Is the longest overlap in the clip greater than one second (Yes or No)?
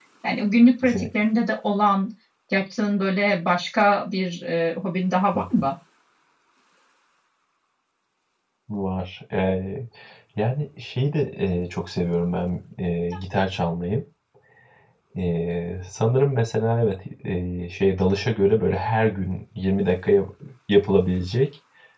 No